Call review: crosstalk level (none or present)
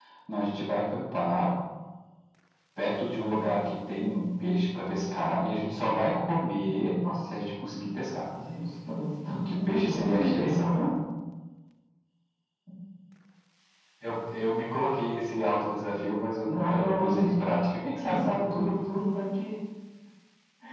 present